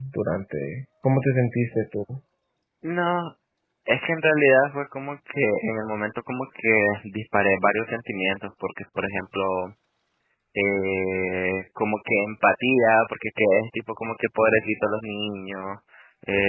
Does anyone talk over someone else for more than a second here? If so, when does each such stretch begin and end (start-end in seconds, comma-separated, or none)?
none